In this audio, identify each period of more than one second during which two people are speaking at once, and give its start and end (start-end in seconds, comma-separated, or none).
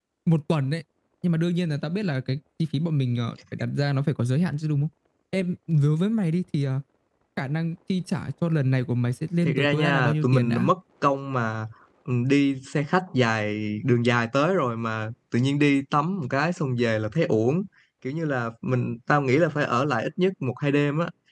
9.4-10.7